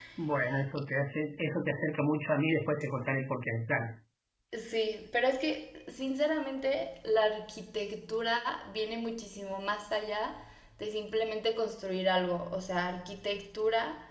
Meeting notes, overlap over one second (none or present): none